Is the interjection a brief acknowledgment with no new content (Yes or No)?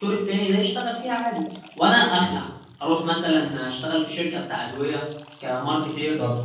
No